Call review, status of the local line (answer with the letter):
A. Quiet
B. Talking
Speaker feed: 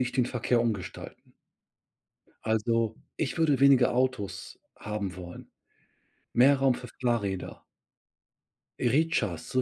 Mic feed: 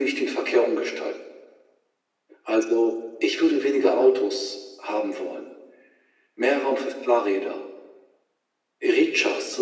A